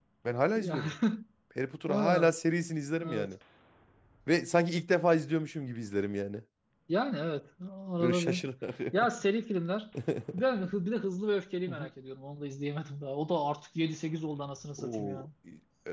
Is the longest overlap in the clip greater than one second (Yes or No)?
No